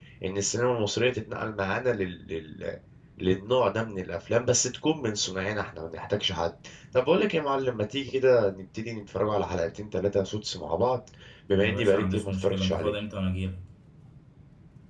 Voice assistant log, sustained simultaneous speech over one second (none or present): present